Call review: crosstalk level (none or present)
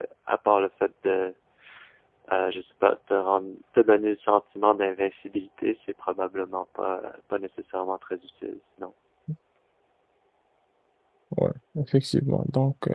none